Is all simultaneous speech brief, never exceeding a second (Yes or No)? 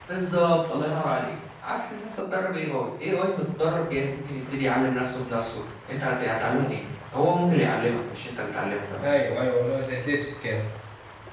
Yes